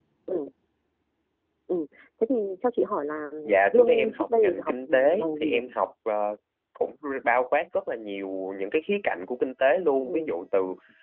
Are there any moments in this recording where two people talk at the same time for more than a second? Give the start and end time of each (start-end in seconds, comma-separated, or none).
3.6-5.6